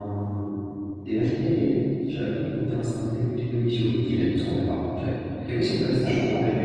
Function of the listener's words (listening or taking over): listening